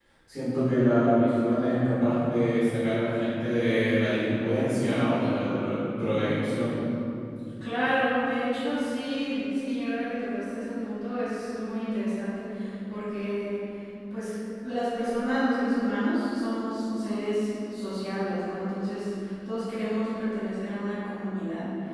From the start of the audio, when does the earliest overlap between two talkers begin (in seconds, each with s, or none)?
none